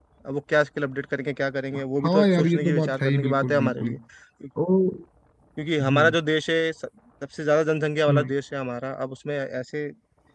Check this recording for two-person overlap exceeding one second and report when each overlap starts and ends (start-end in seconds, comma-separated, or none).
2.0-3.9